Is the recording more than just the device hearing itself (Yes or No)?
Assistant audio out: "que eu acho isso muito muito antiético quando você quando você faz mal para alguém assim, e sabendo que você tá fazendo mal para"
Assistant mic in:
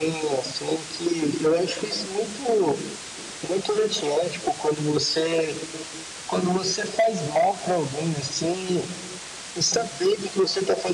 No